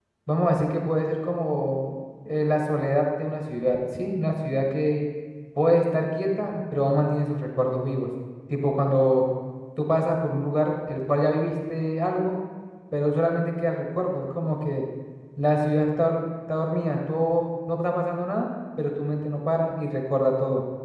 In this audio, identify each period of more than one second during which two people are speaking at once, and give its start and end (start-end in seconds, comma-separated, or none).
none